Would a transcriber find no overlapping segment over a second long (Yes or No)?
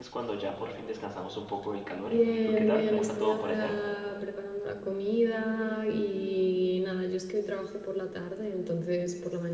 No